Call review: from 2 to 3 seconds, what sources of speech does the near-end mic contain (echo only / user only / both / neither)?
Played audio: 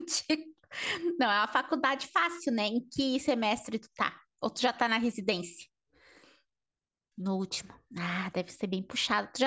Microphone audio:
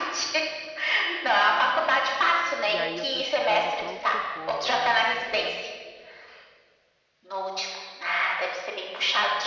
both